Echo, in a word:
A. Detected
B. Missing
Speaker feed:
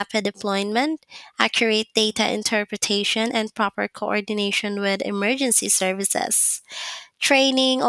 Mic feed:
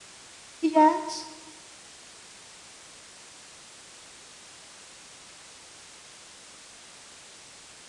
B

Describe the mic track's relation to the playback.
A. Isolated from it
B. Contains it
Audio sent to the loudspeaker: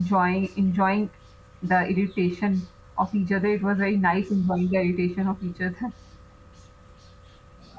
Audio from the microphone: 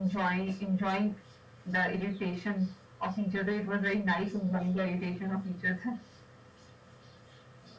B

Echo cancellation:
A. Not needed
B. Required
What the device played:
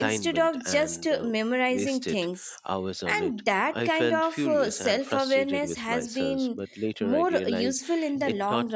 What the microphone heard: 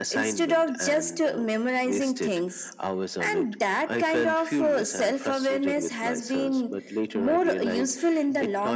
B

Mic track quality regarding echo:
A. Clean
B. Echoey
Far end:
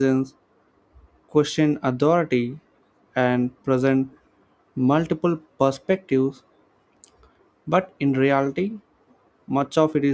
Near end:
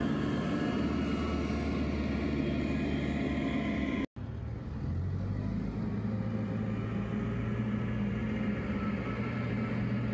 A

